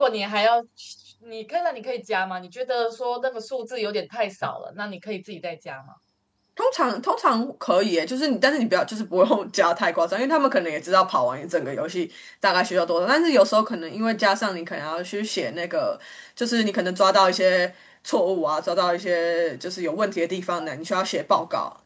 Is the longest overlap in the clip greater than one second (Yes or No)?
No